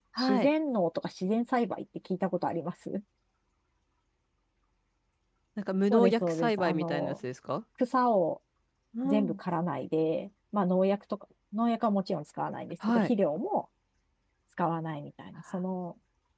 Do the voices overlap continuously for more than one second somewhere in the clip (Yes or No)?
Yes